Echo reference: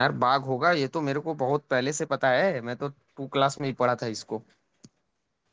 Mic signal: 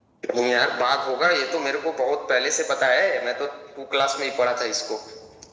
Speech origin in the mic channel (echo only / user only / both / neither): echo only